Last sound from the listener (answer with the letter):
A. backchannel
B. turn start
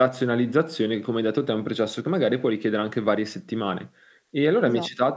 A